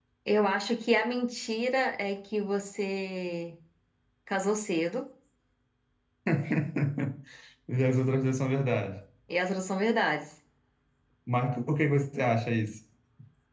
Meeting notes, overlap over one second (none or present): none